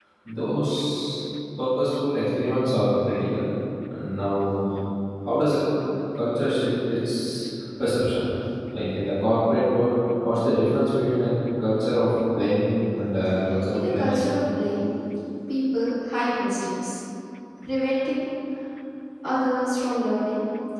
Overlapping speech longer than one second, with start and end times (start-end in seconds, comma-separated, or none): none